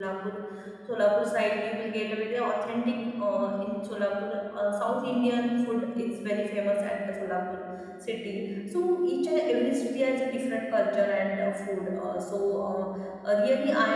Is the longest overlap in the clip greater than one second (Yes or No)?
No